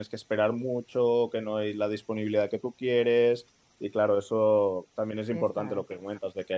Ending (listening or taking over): listening